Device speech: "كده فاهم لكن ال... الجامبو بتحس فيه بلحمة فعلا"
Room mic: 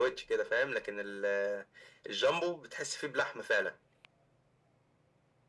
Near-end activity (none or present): none